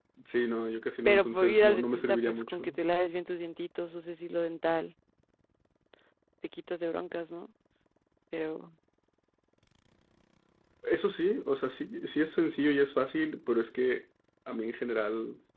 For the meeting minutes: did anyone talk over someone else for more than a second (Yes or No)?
Yes